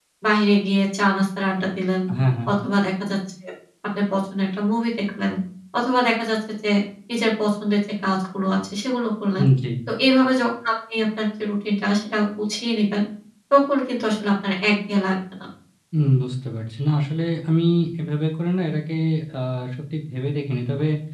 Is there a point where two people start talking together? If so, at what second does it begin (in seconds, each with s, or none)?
none